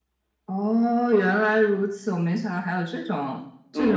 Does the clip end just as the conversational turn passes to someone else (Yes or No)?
Yes